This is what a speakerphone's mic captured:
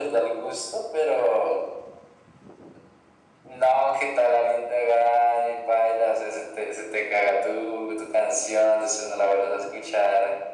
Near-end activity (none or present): none